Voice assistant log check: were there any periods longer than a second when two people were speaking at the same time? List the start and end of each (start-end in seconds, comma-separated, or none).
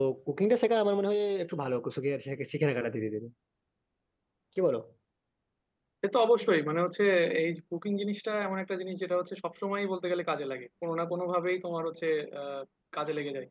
none